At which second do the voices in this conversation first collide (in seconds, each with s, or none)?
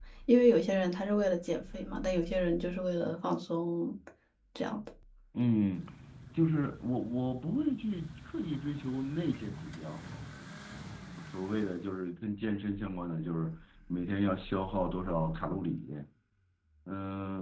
none